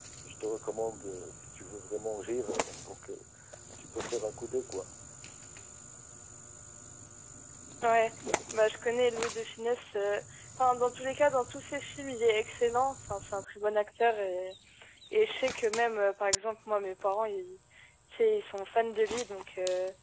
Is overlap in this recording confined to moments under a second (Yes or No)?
Yes